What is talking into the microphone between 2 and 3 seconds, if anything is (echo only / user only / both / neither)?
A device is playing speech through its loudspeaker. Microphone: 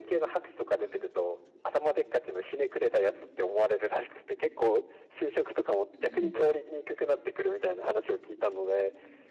echo only